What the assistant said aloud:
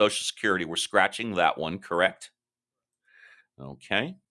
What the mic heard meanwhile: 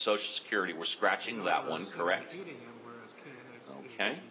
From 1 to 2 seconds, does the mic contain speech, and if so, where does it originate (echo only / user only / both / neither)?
both